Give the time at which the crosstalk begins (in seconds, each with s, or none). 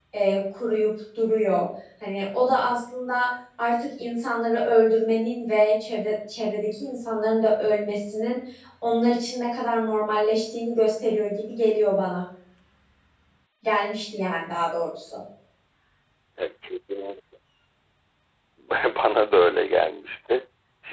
none